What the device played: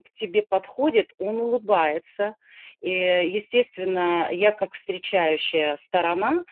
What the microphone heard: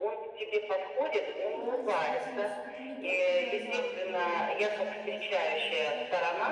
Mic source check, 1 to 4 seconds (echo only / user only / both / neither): both